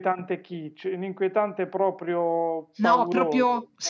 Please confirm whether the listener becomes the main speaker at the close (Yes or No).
Yes